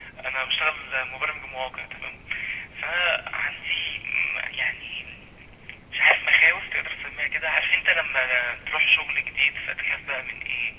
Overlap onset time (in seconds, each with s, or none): none